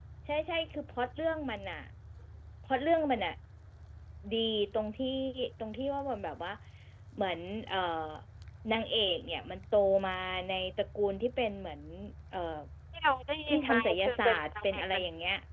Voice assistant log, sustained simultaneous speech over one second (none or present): present